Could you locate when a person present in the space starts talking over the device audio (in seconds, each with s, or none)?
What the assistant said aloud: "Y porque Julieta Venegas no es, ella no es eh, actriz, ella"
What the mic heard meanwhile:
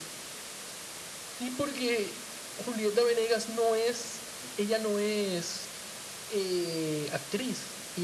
none